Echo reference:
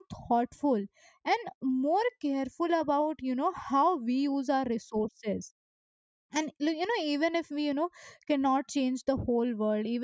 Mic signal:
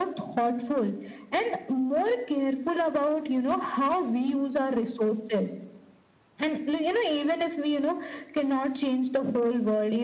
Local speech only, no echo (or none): none